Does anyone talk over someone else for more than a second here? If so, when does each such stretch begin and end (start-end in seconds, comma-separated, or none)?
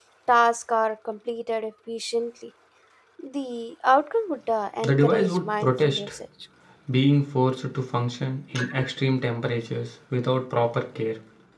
4.8-6.1